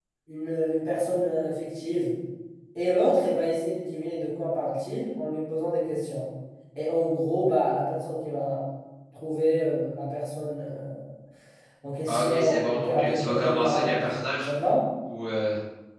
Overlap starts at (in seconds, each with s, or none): 12.1 s